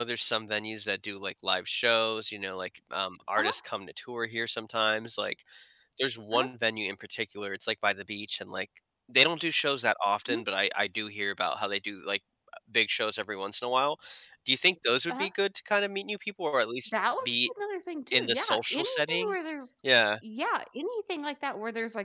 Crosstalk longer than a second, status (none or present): present